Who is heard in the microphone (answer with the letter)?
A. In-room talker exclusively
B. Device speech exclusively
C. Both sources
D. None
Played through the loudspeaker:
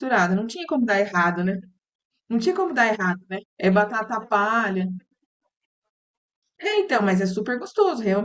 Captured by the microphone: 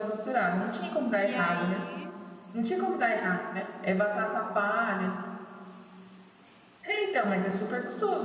C